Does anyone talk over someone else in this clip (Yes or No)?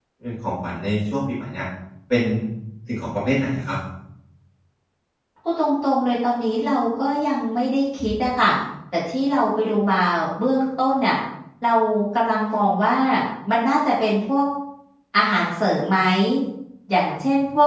No